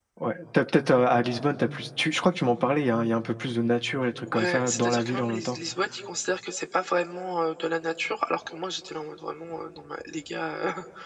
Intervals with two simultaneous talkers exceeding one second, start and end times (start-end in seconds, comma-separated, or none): 4.3-5.6